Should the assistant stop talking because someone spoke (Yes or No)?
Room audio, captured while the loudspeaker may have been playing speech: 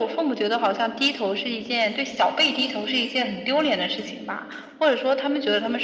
No